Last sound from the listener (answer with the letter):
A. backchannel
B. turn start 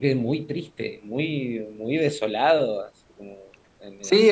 B